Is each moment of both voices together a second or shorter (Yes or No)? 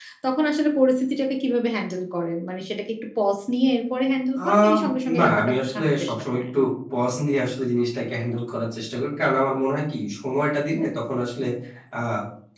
No